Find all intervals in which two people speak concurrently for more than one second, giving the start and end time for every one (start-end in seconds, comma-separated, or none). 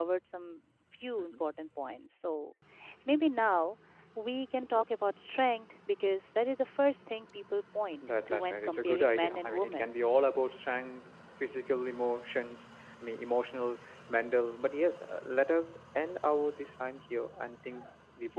8.0-9.9